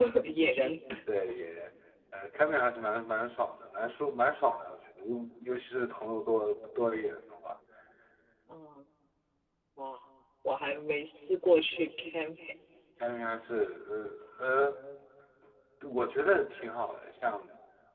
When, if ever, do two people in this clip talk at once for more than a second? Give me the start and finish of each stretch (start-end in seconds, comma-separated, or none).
none